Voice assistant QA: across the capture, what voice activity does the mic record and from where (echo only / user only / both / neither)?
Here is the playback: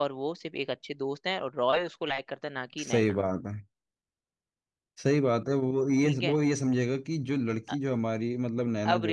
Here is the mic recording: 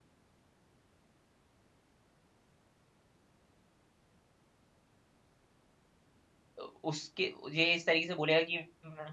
user only